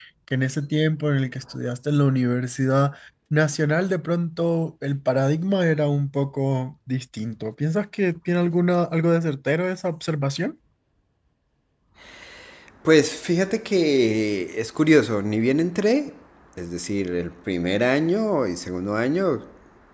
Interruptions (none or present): none